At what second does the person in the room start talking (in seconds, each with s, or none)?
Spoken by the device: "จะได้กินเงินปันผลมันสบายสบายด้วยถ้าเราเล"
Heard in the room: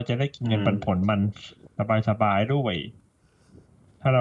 0.4 s